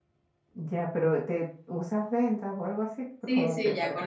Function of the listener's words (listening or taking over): taking over